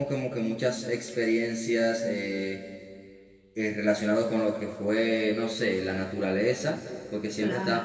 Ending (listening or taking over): listening